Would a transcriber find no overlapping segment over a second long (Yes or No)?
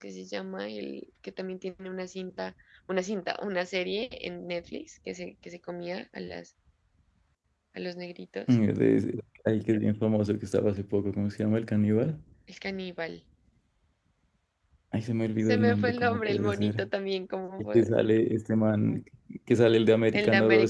No